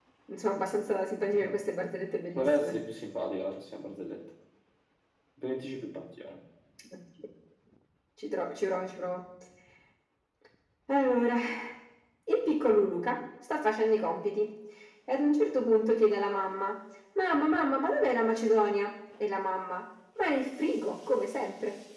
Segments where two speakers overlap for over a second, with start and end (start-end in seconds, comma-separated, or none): none